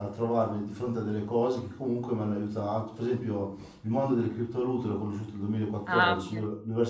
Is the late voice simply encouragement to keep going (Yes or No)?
Yes